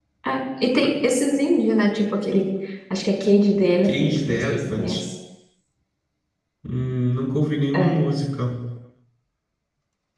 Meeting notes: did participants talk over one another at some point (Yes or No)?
Yes